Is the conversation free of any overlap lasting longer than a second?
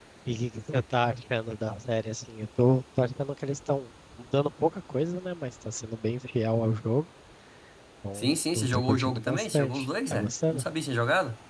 No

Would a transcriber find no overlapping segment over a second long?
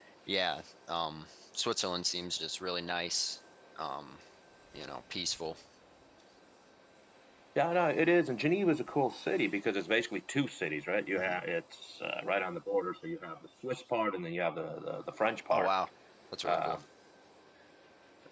Yes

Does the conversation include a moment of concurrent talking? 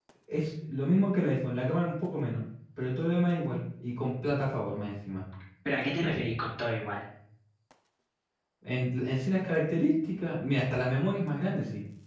No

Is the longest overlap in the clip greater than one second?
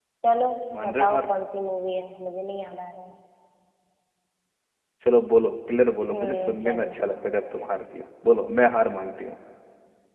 Yes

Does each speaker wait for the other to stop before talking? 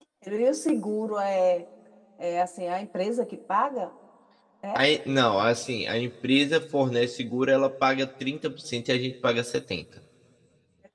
Yes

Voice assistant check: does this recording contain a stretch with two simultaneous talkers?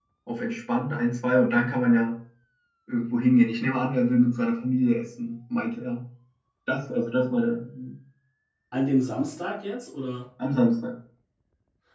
No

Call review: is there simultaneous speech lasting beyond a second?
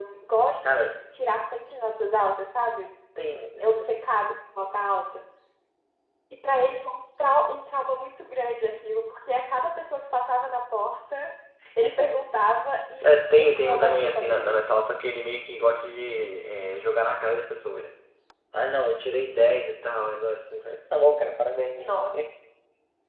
Yes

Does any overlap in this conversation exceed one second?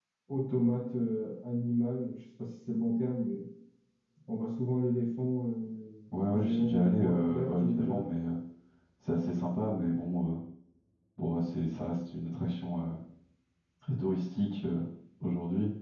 Yes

